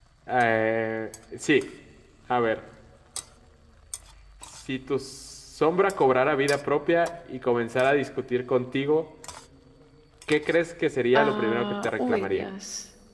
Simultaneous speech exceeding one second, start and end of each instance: 11.2-12.4

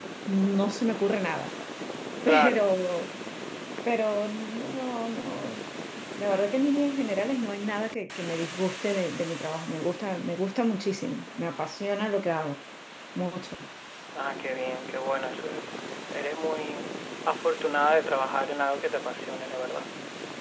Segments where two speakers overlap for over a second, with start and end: none

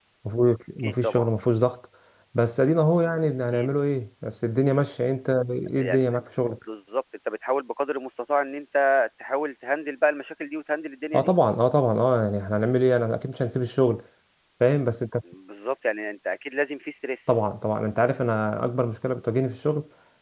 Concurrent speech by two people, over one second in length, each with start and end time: none

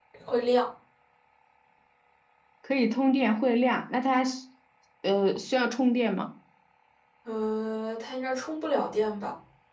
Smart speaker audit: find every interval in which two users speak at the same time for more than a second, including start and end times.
none

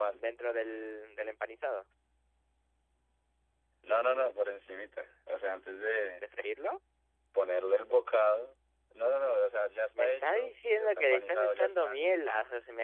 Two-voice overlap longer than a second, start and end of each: 9.9-12.0

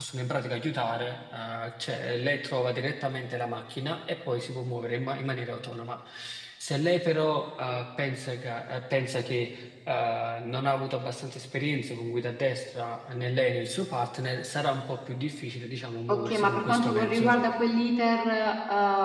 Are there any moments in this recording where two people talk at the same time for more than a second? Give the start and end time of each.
16.1-17.4

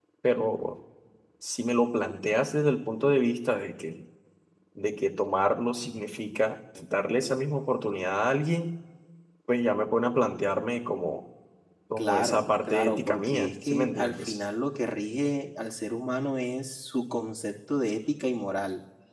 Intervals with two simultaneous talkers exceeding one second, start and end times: 12.0-14.4

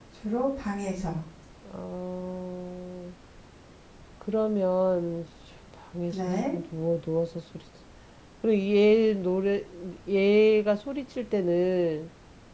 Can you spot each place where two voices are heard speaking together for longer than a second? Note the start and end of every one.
none

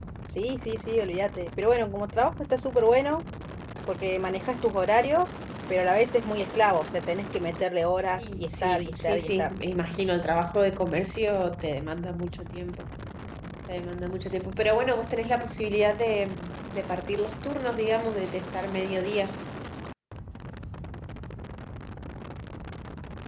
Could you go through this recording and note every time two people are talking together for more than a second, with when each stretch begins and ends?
8.2-9.5

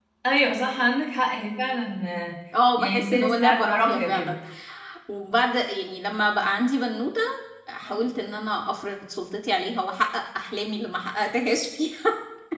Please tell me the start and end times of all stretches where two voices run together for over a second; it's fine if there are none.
2.8-4.3

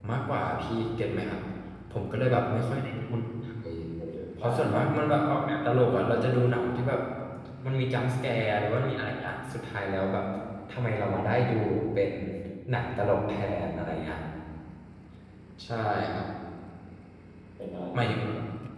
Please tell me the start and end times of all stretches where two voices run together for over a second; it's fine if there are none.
none

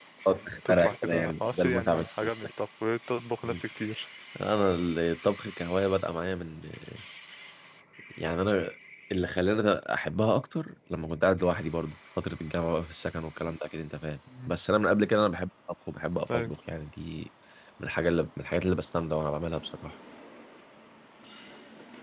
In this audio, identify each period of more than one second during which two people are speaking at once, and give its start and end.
0.7-2.5

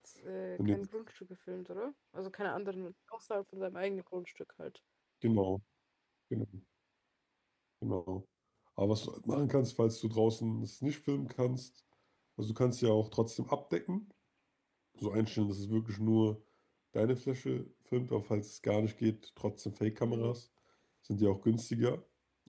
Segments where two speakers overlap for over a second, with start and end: none

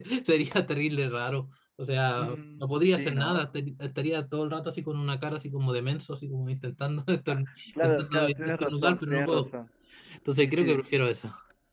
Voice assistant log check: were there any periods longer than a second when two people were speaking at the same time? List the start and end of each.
2.2-3.4, 7.8-9.4

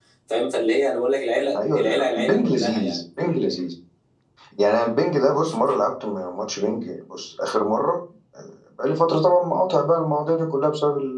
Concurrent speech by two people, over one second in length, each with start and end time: 1.7-3.0

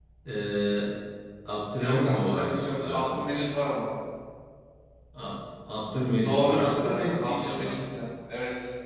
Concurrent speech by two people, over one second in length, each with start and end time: 1.8-3.2, 6.2-7.8

